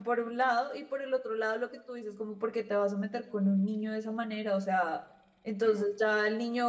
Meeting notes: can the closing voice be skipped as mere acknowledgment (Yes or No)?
Yes